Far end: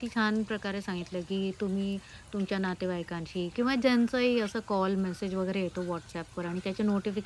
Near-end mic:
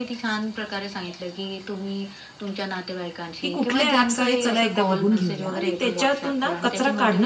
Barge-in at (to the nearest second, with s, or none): 3 s